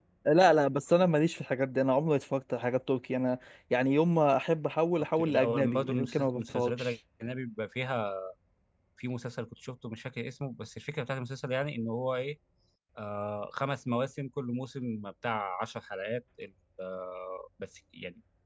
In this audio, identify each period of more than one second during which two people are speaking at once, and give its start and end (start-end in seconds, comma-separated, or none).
5.2-7.0